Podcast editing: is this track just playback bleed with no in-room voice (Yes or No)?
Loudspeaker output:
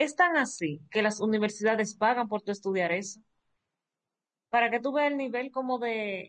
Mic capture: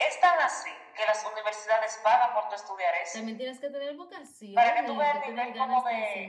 No